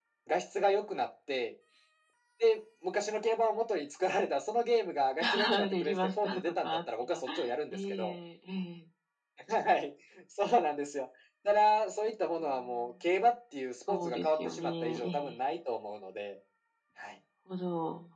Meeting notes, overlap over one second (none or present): present